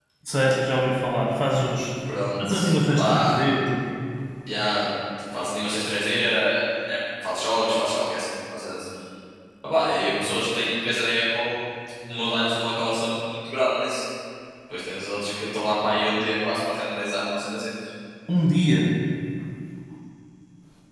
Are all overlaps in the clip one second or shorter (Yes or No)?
Yes